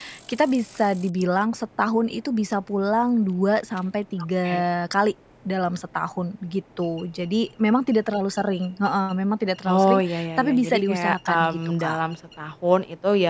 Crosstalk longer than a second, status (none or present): present